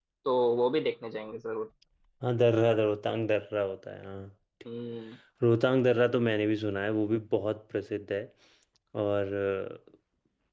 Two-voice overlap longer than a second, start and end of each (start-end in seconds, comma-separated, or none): none